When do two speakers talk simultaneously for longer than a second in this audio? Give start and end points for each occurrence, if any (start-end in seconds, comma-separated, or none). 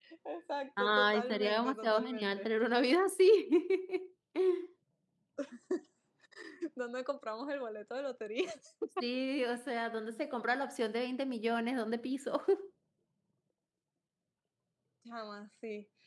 0.8-2.5